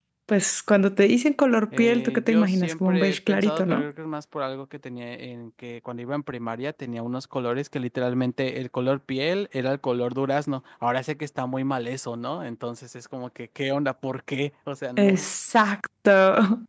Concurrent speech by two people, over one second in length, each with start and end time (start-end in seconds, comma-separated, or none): 1.8-3.8